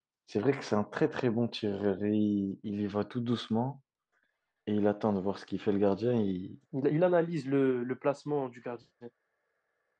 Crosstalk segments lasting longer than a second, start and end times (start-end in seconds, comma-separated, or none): none